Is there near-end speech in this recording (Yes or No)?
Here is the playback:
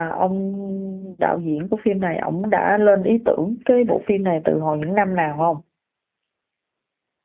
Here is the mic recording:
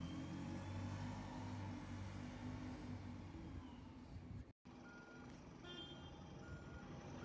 No